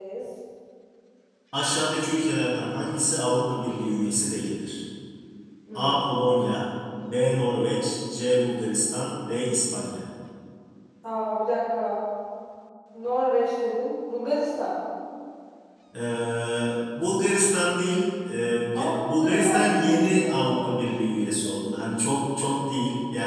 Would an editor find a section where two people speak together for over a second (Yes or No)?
Yes